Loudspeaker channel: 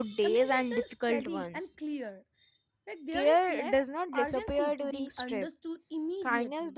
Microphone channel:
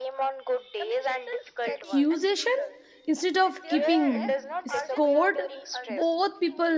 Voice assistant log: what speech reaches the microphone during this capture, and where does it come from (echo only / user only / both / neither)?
both